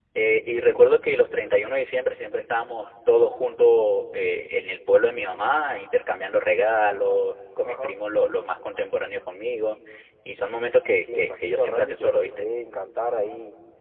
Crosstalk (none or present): present